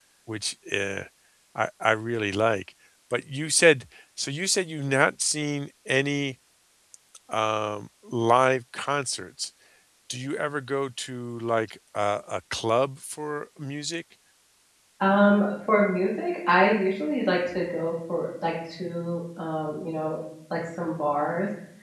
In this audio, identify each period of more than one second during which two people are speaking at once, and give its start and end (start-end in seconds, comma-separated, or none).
none